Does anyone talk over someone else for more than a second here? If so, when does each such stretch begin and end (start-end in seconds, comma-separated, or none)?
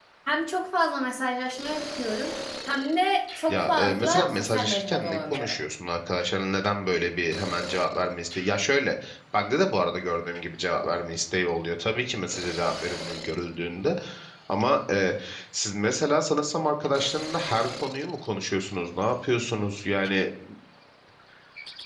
3.5-5.6